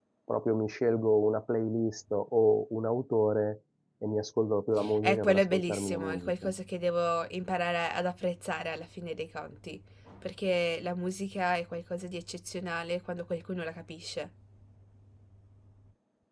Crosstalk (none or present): present